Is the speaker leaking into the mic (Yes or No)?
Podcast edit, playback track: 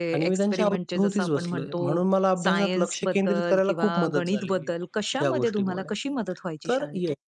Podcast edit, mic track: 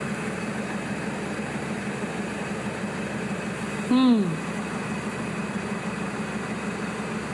No